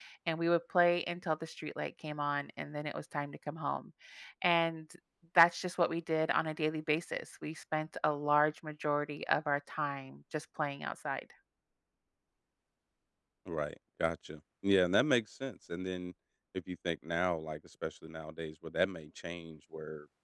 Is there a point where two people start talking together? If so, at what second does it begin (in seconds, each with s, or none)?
none